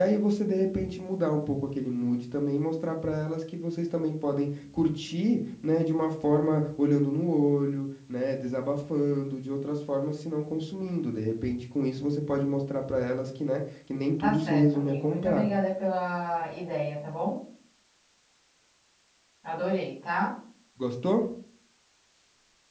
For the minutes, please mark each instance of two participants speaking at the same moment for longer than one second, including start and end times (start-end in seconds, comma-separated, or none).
14.2-15.5